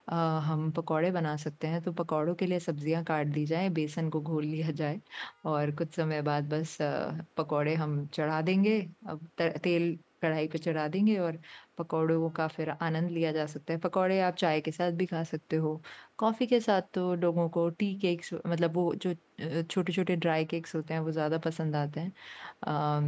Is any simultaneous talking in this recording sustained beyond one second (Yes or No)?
No